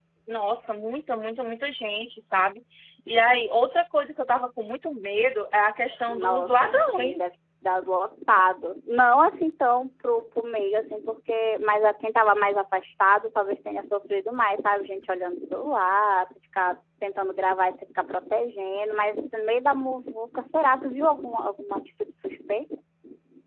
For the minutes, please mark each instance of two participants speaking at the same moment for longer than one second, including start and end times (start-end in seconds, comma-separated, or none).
6.1-7.3